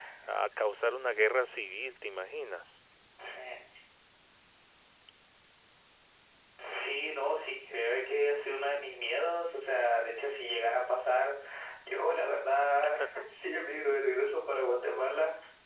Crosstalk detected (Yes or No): No